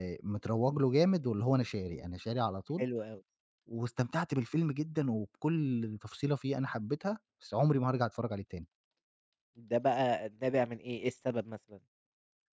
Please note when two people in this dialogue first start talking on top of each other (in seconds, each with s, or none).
none